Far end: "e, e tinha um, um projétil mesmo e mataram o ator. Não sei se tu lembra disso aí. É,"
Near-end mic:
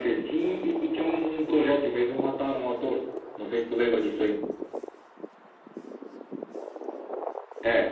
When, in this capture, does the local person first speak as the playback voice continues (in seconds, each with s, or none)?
none